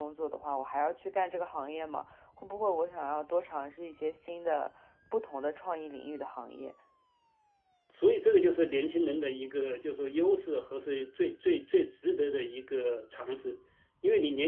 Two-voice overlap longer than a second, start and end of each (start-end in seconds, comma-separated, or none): none